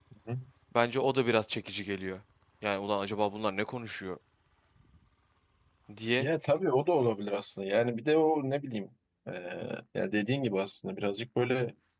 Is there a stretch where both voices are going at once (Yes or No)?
No